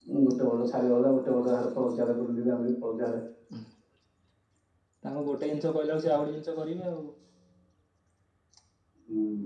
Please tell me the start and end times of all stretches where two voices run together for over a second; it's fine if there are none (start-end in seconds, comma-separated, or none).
none